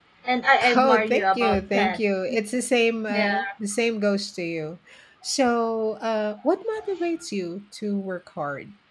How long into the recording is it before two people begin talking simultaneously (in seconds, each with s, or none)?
0.8 s